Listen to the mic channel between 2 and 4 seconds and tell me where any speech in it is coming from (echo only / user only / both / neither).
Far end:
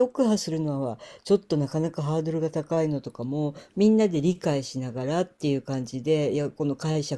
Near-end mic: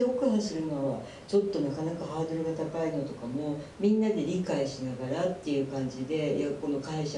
echo only